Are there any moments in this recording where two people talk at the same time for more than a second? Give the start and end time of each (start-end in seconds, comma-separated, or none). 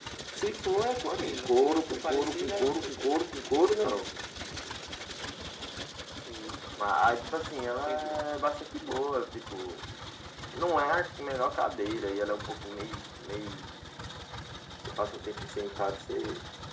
1.2-3.1